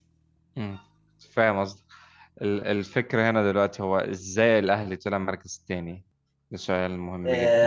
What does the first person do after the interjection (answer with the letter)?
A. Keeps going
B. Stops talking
B